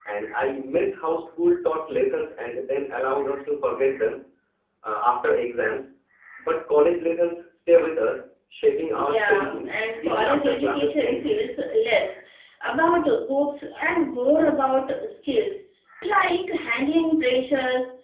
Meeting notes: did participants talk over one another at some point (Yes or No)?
Yes